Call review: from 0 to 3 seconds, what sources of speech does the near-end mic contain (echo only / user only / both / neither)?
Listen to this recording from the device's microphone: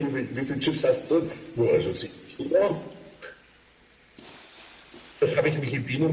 echo only